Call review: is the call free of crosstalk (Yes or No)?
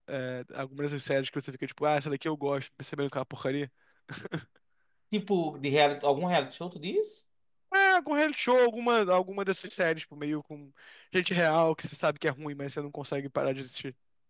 Yes